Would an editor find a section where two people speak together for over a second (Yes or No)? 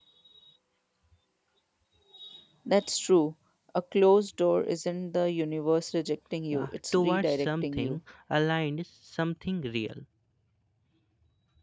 Yes